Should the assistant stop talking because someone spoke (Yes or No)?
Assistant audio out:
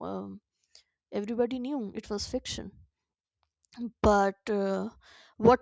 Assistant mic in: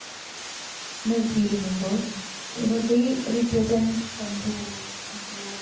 Yes